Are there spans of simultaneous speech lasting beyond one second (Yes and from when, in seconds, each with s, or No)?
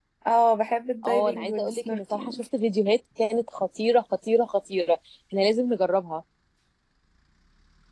Yes, from 1.0 s